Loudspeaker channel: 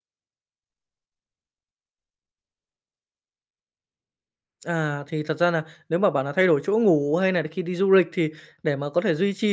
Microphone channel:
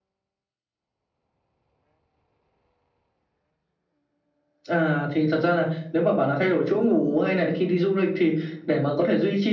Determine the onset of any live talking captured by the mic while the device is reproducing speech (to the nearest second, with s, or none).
none